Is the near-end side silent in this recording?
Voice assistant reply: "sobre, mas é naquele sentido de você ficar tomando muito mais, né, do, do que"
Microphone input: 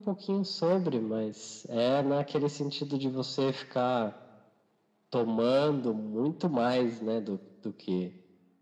Yes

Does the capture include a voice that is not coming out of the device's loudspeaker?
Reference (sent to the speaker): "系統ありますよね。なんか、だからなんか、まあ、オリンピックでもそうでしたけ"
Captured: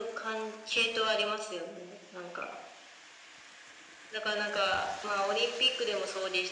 No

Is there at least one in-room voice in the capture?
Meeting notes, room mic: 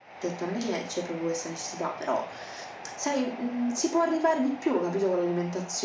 No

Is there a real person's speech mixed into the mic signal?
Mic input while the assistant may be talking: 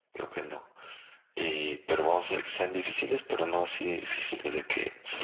No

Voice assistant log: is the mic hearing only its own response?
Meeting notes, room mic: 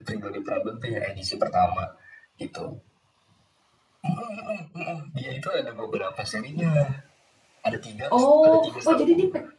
No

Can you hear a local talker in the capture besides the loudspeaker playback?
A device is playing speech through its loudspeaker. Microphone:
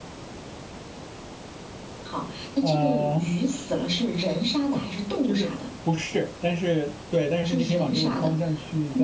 Yes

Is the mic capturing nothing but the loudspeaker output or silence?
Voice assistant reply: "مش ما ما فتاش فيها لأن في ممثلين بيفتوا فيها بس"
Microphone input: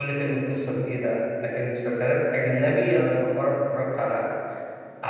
No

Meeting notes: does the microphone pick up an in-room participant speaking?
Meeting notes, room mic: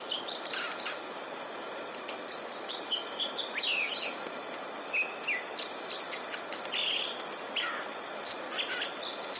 No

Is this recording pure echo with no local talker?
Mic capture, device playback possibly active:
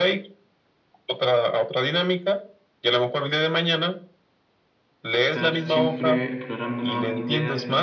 No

